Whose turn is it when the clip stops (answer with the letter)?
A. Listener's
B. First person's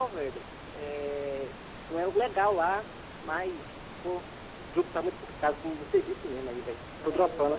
A